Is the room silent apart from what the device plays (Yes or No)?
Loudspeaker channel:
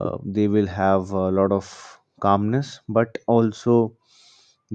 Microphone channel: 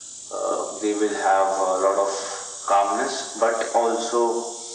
Yes